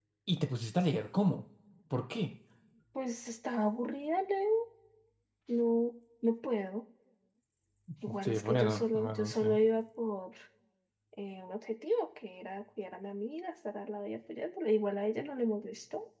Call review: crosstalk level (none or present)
present